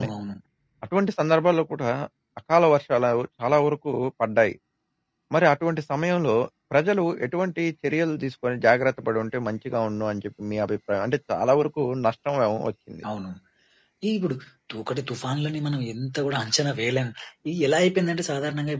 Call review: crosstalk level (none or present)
none